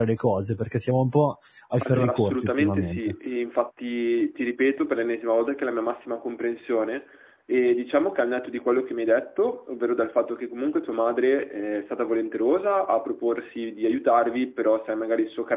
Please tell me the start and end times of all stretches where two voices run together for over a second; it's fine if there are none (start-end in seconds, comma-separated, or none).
1.8-3.1